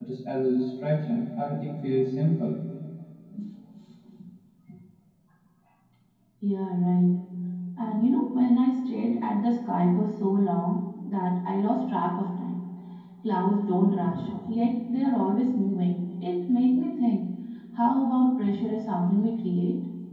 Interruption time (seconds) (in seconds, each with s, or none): none